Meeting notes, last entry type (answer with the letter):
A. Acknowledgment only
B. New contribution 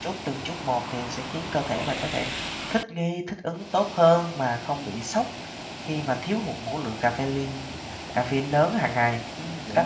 B